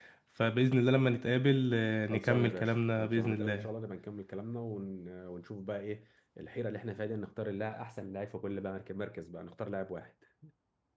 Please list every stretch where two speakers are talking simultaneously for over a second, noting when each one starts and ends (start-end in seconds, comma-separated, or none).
2.1-3.7